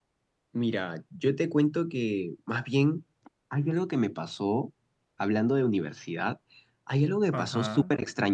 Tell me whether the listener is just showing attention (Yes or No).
Yes